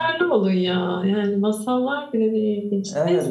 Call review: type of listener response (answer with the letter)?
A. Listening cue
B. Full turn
B